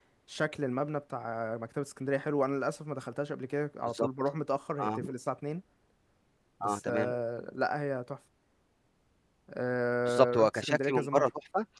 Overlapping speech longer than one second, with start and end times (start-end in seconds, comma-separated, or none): 10.1-11.3